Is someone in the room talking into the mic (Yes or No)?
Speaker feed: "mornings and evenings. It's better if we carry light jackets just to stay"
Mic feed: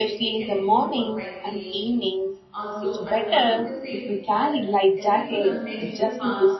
Yes